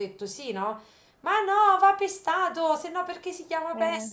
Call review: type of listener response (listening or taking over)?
listening